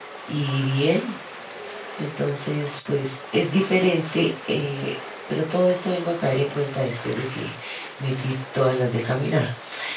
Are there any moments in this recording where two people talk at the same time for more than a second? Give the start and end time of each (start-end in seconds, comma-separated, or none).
none